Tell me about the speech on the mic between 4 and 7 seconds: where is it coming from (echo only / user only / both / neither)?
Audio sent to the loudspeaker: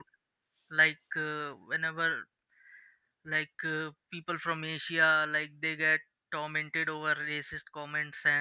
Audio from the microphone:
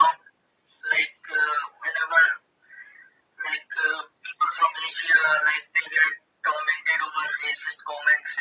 echo only